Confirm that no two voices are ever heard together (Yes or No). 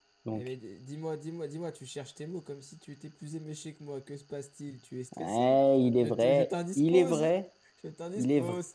No